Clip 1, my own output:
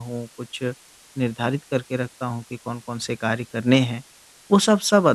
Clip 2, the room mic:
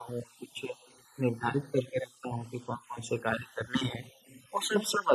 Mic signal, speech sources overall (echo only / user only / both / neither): echo only